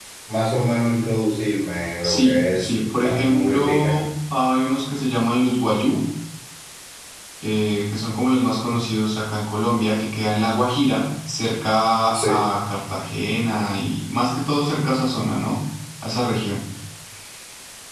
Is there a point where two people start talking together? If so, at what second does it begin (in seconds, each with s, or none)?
2.0 s